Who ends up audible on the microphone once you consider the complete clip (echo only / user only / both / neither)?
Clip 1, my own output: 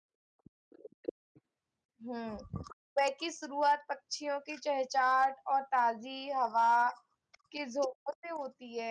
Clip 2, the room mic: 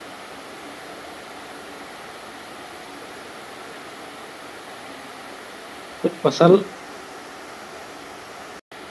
user only